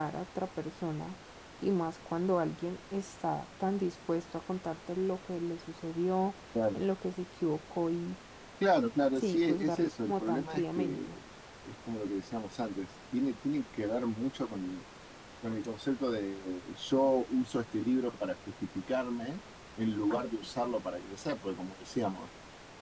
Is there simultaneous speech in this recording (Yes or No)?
Yes